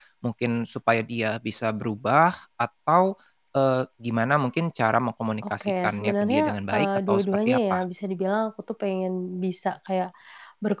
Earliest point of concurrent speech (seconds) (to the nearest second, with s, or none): 5 s